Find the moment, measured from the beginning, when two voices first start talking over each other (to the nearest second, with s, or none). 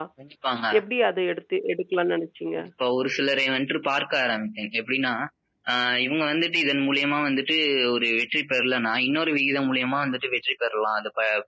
none